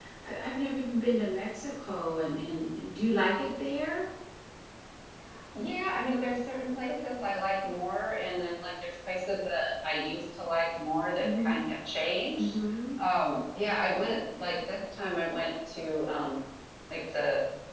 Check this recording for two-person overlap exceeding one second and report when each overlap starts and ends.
none

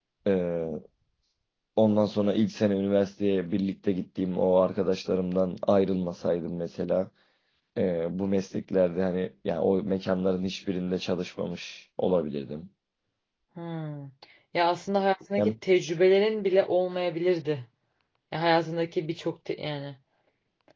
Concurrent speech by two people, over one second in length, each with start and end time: none

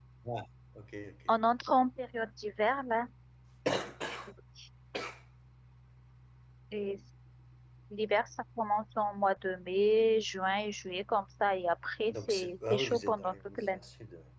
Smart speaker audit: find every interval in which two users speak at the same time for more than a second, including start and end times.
12.1-13.8

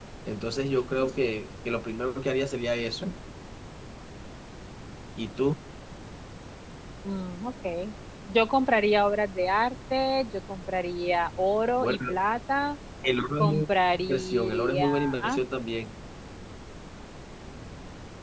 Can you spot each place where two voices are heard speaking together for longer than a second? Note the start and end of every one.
13.4-15.4

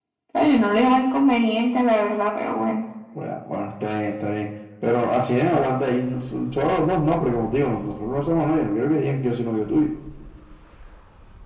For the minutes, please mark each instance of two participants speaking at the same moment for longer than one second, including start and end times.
none

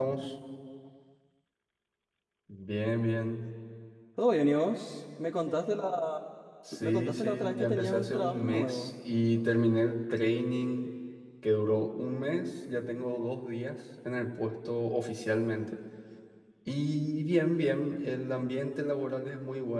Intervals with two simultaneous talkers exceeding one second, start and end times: 6.8-8.9

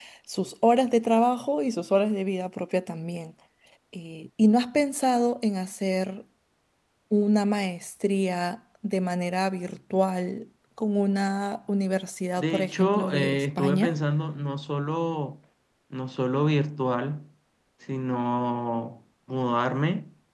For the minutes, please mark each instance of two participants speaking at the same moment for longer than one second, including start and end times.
12.4-14.0

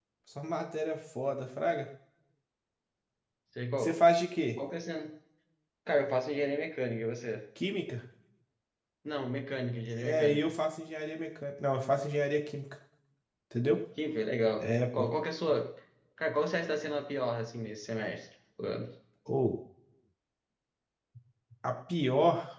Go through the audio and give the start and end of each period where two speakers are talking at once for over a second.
none

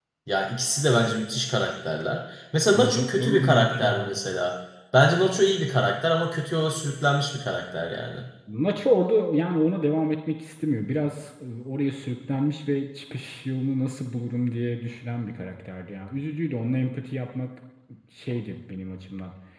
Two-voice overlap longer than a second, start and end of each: 2.7-4.1

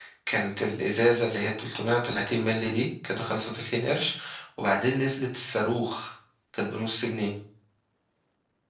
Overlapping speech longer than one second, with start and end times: none

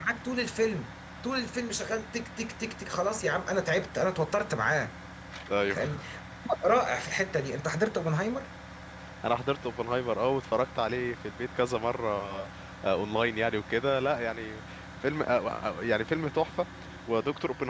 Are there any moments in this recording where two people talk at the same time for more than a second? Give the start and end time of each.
none

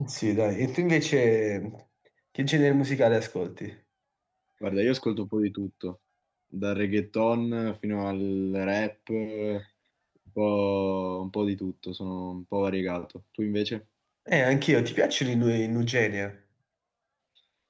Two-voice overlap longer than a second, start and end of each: none

